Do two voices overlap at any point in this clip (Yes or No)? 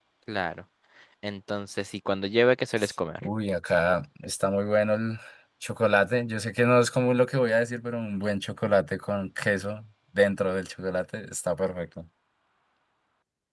No